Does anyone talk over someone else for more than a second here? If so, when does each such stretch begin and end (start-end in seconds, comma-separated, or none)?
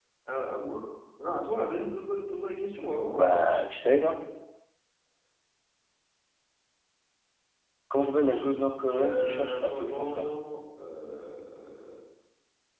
9.0-10.3